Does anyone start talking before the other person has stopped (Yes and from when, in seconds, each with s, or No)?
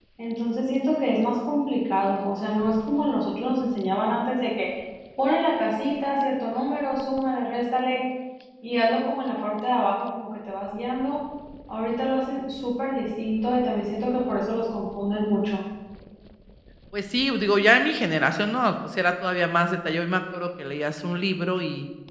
No